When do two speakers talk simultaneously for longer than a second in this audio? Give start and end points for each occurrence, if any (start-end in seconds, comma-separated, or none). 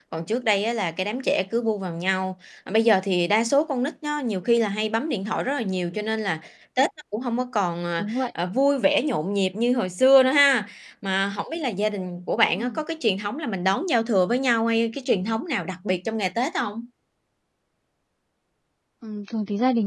none